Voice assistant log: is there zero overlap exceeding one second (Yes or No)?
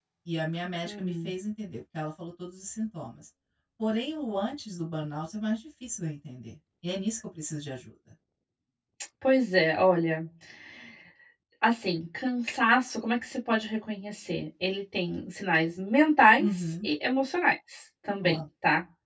Yes